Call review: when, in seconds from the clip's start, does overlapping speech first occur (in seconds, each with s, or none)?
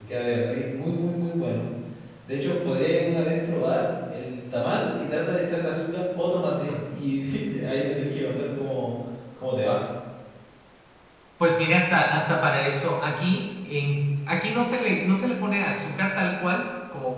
none